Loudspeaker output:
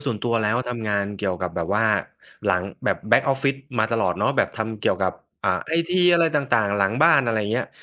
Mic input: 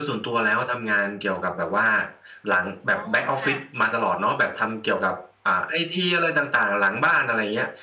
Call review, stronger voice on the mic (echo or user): echo